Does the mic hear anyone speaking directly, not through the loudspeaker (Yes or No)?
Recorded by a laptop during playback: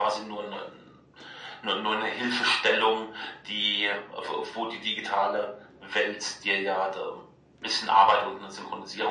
No